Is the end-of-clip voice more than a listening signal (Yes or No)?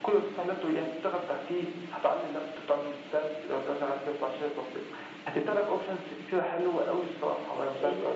Yes